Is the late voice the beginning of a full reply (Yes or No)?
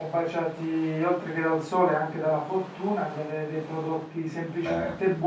No